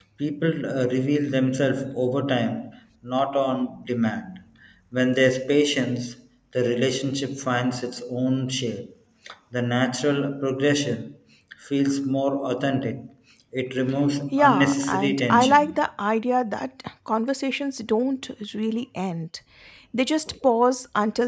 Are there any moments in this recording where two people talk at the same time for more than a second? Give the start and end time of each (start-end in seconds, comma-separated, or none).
14.3-15.8